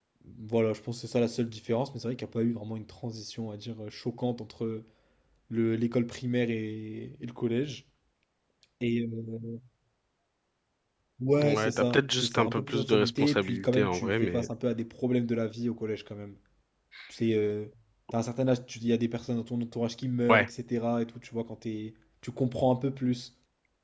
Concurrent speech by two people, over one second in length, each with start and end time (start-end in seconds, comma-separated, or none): 11.4-14.5